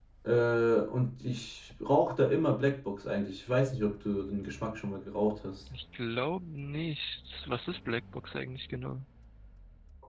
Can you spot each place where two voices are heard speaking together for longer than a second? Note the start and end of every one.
none

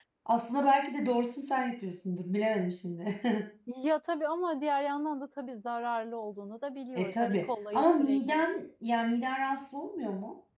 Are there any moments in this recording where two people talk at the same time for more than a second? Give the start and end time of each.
7.0-8.4

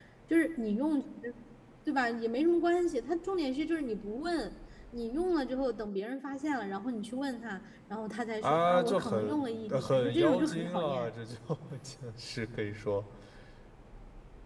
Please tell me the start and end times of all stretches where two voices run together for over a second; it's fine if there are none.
8.4-11.1

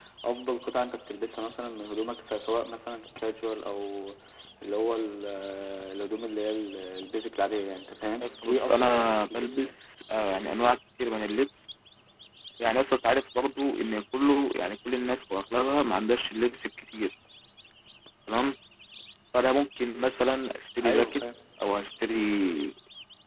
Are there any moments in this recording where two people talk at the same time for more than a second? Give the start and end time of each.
8.2-9.7

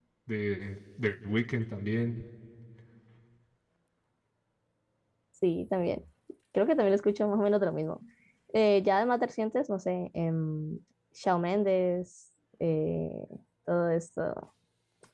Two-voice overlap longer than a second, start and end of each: none

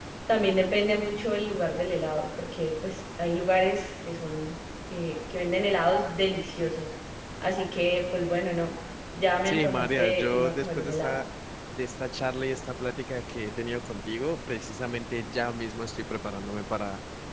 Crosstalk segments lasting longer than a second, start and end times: 9.4-11.2

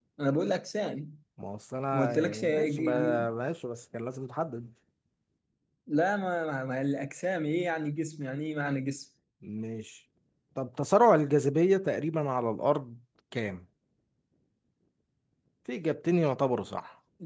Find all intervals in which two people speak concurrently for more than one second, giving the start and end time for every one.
1.9-3.2

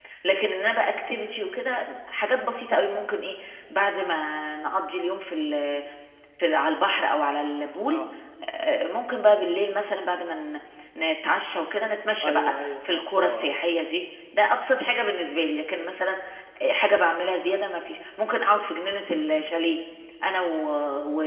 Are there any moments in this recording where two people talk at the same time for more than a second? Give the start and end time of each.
12.2-13.5

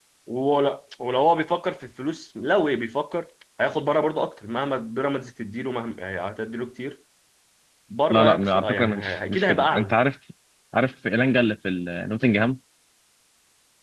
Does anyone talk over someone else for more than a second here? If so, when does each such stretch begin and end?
8.1-9.9

